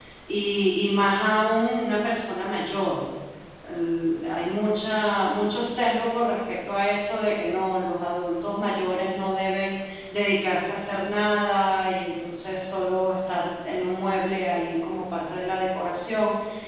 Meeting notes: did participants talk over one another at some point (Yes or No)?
No